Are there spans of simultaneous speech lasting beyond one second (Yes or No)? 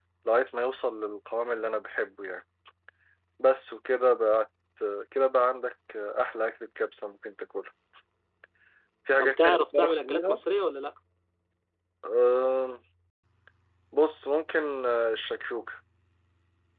Yes